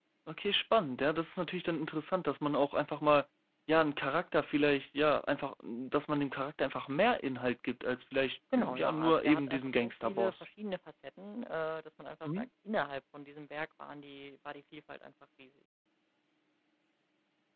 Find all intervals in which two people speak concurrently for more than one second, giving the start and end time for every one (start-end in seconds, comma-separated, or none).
8.6-10.4